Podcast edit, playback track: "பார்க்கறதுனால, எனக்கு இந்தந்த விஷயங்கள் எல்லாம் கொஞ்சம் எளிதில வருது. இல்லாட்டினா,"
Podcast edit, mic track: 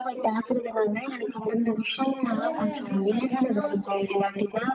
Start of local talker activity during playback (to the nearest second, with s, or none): 2 s